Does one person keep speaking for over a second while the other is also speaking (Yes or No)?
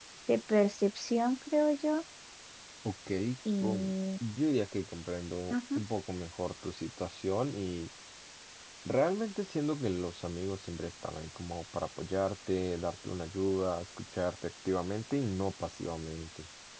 No